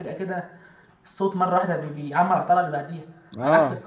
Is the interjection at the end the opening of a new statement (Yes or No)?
Yes